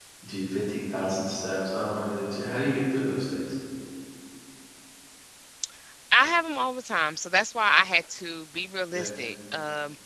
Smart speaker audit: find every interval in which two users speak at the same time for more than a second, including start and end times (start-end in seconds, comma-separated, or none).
none